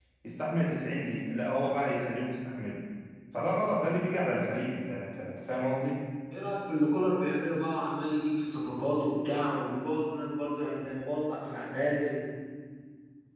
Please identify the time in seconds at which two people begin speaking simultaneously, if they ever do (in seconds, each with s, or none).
none